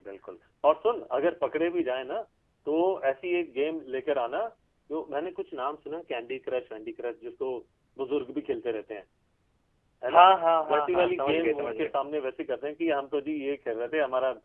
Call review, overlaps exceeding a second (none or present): present